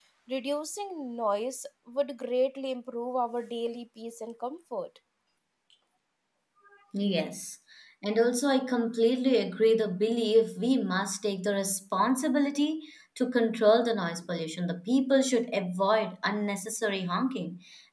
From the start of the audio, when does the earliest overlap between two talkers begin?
none

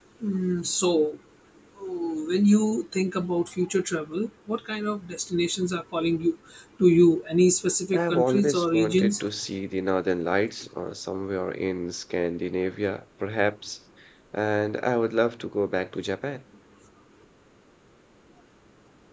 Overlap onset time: 7.9 s

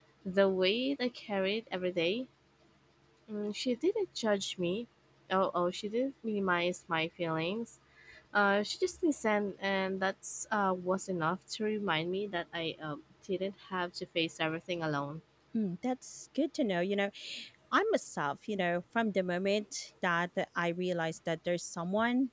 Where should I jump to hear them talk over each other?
none

